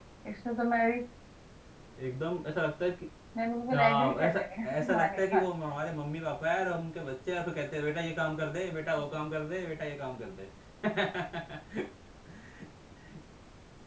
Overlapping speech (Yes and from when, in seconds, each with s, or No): Yes, from 3.7 s